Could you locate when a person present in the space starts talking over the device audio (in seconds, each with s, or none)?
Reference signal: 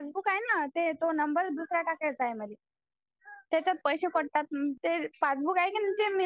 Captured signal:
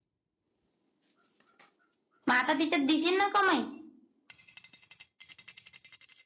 2.3 s